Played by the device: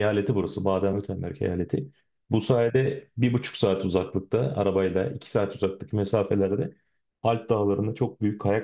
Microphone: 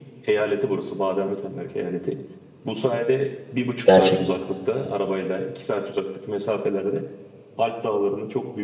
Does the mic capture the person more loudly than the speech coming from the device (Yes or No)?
Yes